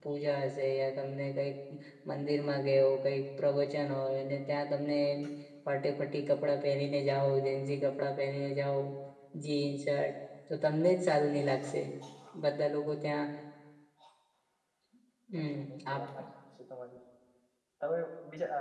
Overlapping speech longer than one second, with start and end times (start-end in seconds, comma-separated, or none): none